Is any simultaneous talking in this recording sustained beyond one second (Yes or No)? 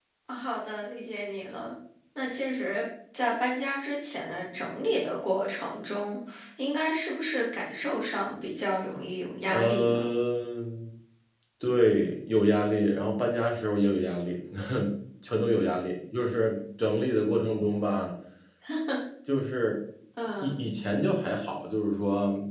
No